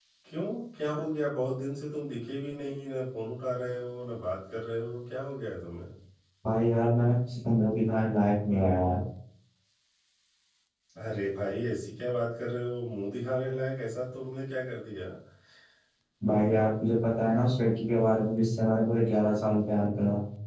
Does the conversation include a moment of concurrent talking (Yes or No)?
No